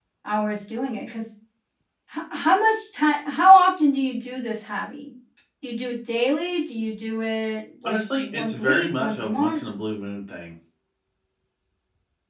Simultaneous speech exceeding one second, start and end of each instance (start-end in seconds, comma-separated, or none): 7.8-9.6